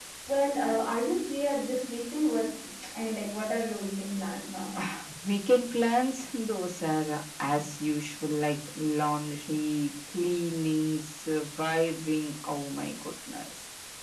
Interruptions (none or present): none